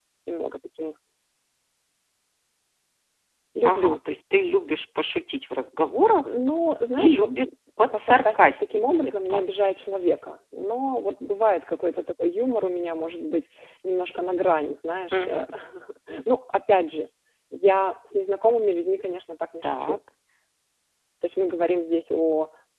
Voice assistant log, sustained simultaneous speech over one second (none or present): present